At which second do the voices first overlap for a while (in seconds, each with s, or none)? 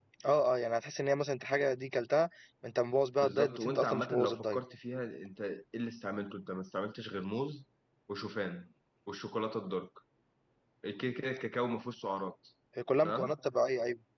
3.2 s